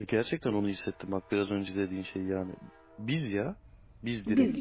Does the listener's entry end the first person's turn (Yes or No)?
Yes